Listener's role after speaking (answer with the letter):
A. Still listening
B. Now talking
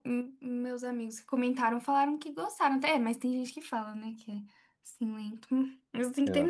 A